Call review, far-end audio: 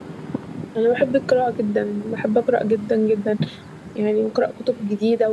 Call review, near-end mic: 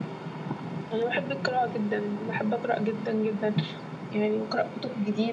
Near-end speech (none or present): none